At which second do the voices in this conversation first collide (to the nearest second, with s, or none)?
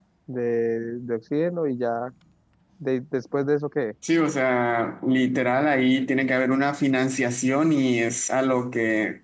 none